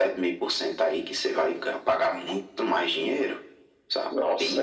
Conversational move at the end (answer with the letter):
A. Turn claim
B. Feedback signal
A